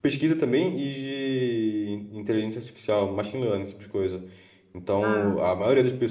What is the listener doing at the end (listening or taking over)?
listening